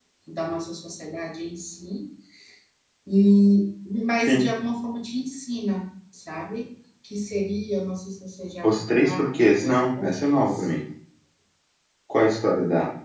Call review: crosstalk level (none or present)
present